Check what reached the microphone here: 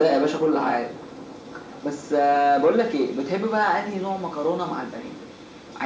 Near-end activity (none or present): none